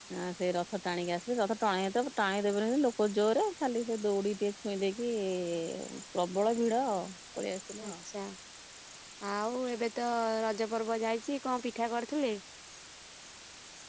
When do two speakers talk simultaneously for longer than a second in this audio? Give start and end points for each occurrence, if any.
none

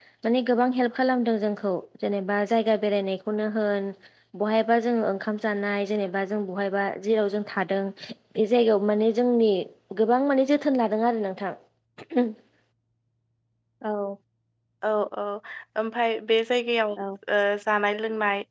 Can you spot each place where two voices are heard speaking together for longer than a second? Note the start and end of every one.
none

